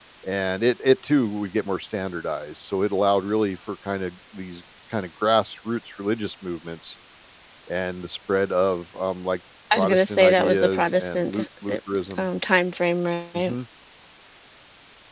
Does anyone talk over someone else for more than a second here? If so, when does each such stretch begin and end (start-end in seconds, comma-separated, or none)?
9.7-11.8